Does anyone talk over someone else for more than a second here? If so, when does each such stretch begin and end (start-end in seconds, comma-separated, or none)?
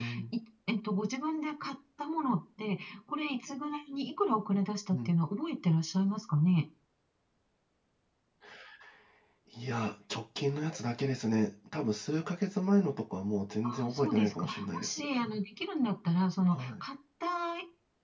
13.6-15.0